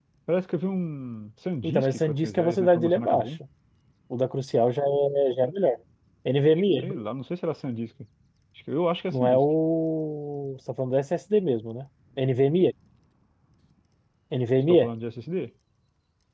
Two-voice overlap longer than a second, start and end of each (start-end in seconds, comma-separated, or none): 1.6-3.2